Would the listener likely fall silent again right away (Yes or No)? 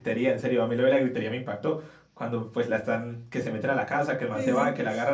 Yes